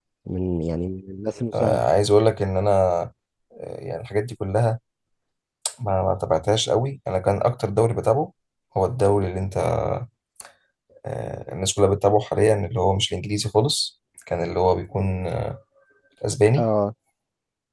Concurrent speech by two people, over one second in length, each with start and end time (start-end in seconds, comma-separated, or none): none